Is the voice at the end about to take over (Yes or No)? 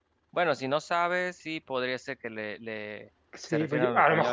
Yes